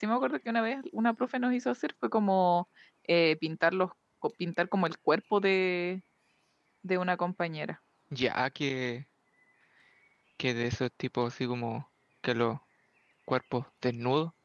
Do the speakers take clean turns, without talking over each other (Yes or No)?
Yes